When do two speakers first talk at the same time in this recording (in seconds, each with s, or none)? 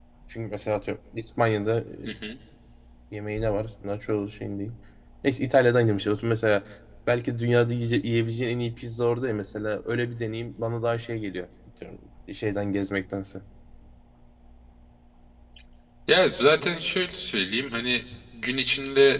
none